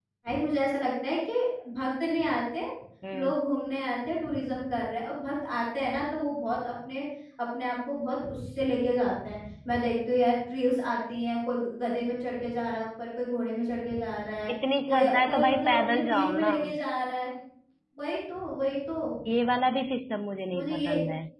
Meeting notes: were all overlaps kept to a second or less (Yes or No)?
No